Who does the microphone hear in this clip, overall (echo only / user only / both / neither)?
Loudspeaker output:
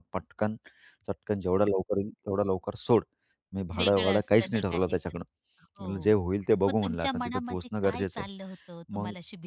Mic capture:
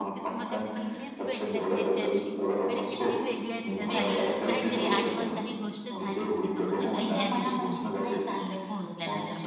both